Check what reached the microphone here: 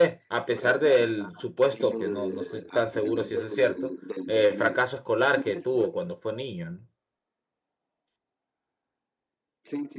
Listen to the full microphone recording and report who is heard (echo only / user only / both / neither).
both